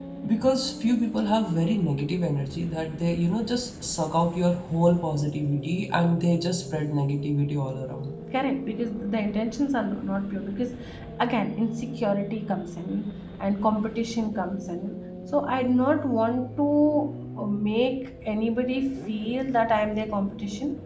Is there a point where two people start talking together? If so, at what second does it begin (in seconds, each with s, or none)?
none